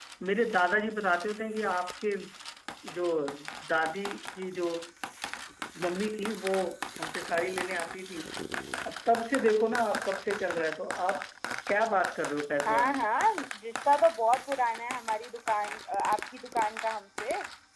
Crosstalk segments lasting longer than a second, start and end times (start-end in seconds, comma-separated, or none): none